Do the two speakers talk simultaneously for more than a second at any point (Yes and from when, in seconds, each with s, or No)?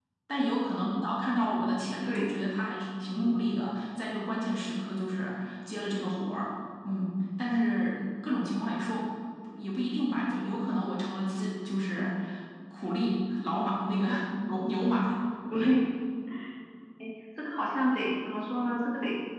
No